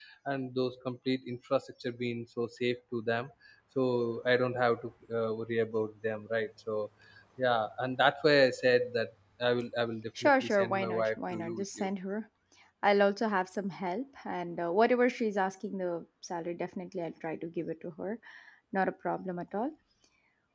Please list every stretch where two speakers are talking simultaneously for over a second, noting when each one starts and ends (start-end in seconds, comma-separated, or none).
10.2-11.9